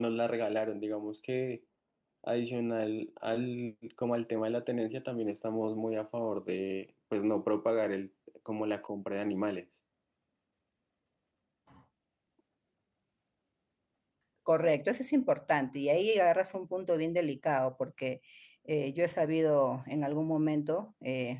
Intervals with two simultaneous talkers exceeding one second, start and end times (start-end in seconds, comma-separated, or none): none